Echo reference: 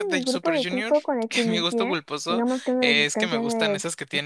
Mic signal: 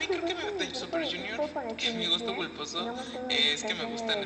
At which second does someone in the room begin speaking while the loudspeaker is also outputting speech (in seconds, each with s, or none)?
none